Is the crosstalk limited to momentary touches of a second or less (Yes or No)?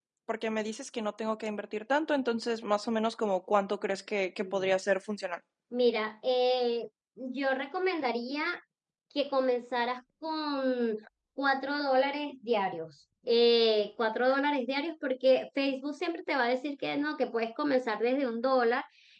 Yes